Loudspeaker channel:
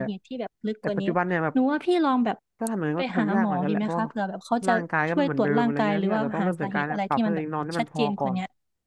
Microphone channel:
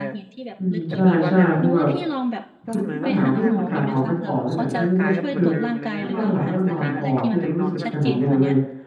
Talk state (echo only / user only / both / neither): both